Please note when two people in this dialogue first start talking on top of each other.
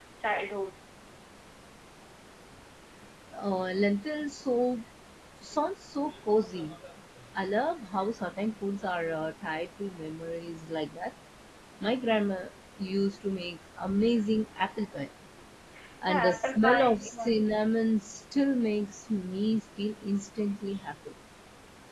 16.1 s

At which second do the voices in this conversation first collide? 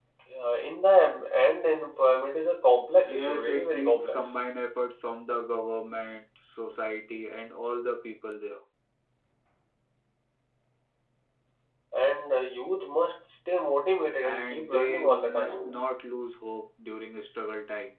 3.0 s

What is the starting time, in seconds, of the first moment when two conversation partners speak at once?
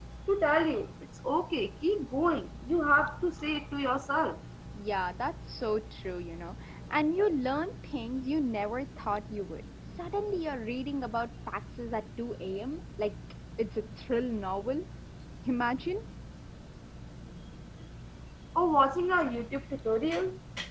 none

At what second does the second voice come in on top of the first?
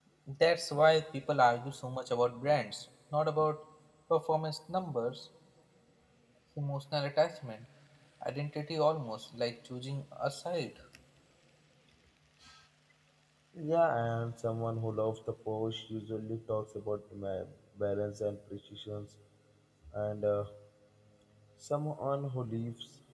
none

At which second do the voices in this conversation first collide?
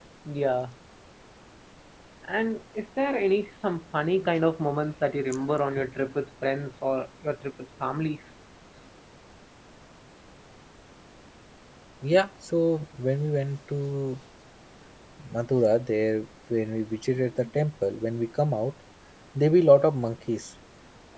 none

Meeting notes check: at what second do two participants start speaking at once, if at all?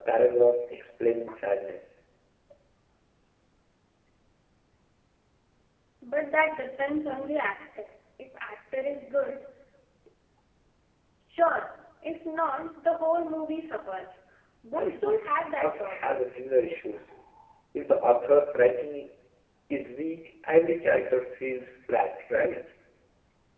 15.0 s

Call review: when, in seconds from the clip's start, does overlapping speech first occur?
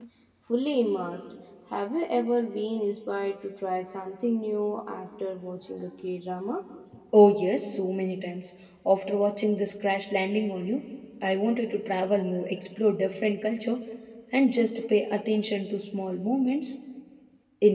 none

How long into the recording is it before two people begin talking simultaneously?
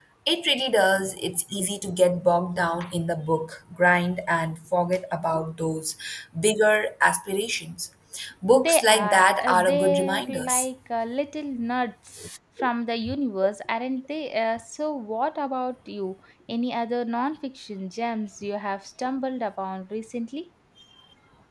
8.6 s

